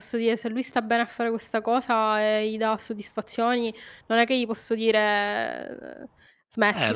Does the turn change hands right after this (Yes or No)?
Yes